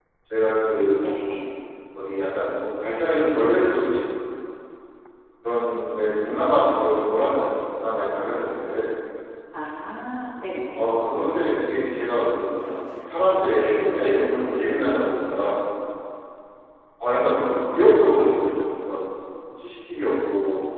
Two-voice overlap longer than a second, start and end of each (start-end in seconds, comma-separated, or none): none